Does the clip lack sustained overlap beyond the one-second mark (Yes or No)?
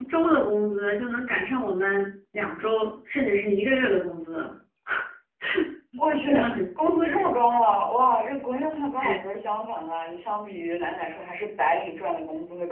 Yes